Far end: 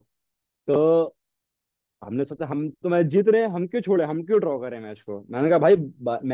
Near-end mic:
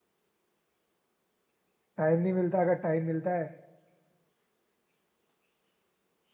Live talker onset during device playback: 2.0 s

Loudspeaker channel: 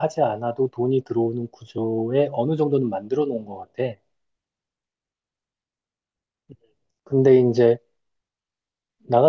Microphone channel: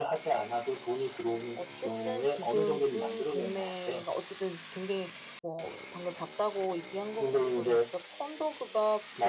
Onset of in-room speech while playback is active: 1.5 s

